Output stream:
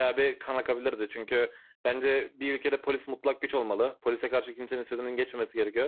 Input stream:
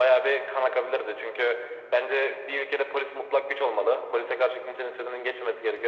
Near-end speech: none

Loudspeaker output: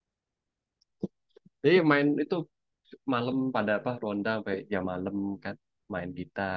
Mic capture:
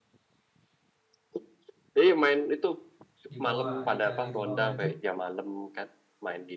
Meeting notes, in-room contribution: present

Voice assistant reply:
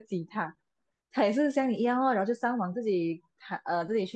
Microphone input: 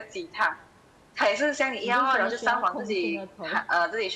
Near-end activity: present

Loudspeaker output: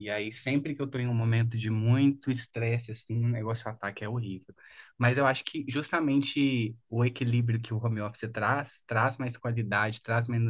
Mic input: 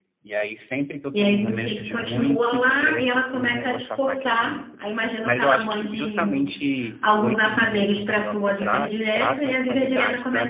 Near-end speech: present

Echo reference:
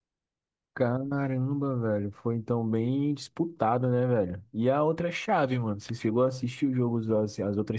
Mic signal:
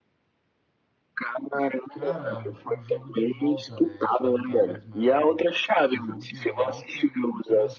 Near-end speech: present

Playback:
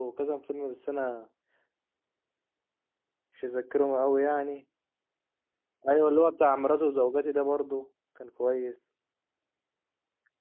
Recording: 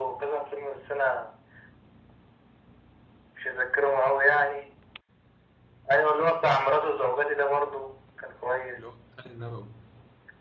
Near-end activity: present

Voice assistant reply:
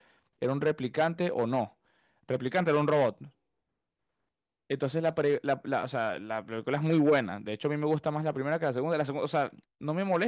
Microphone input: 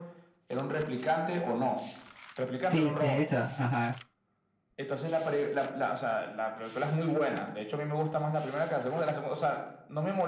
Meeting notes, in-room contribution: present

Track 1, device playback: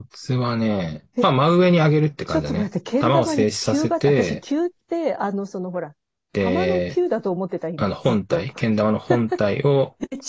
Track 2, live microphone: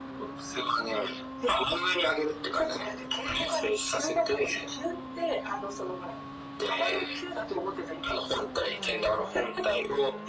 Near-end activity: none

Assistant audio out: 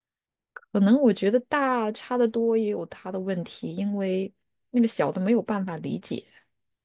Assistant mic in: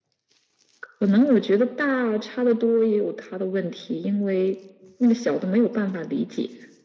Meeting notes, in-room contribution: none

